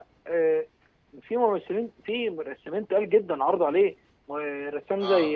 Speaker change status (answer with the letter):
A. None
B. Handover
A